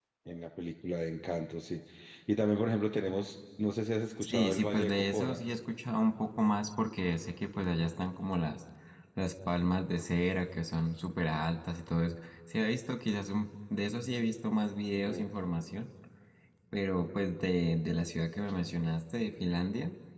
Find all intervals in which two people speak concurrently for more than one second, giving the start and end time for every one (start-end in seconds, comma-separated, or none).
4.2-5.4